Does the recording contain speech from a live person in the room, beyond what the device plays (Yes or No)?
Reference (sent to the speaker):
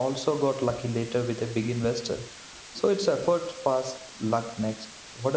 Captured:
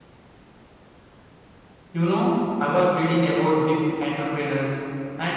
Yes